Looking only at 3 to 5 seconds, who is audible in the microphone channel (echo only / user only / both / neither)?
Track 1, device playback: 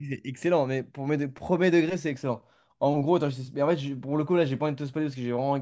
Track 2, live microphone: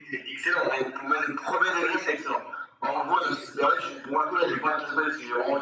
echo only